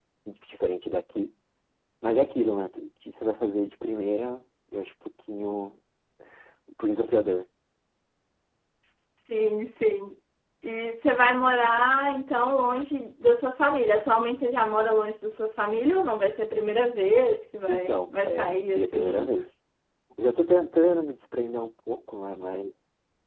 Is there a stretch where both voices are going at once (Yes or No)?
Yes